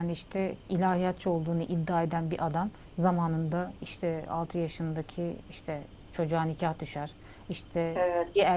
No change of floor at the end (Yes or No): Yes